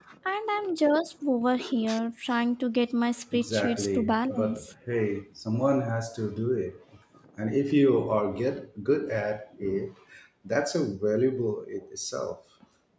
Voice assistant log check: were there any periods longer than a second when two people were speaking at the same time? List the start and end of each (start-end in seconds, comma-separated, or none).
3.3-4.7